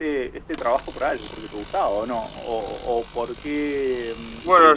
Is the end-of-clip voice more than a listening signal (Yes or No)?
Yes